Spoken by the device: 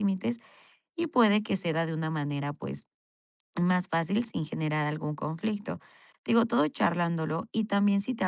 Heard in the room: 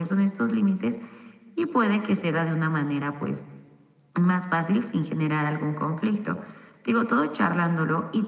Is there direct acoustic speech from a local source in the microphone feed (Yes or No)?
No